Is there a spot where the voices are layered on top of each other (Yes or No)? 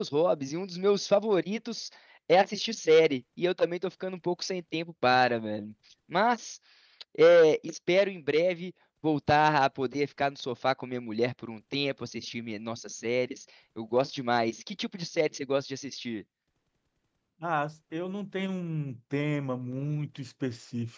No